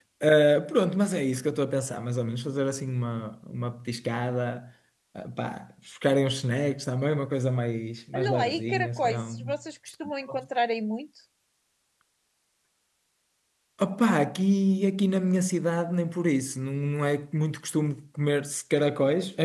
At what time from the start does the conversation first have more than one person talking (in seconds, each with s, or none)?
8.1 s